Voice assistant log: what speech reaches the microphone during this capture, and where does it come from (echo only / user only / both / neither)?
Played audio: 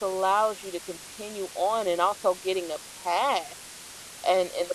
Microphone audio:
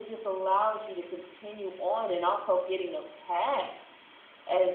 echo only